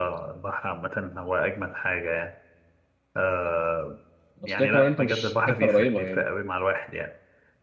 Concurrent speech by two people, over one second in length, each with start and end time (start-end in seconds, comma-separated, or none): 4.5-6.2